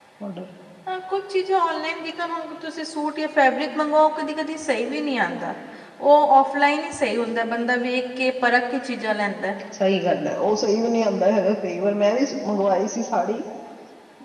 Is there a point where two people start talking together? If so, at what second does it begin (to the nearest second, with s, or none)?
none